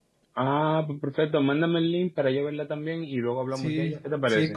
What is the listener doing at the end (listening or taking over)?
taking over